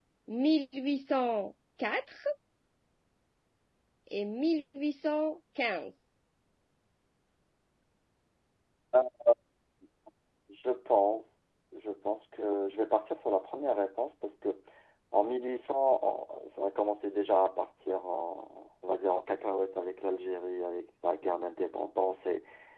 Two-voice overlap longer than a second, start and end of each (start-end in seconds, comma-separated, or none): none